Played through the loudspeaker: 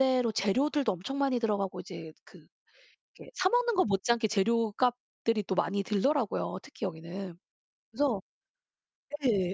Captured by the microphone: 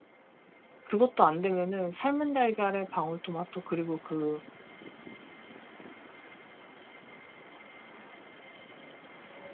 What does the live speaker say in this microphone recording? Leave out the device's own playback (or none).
그것도 안되면은 삶은 달걀에 방울토마토 그리고 그